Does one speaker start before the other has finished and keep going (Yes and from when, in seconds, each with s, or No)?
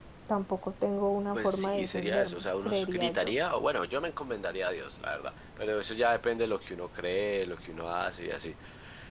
Yes, from 1.3 s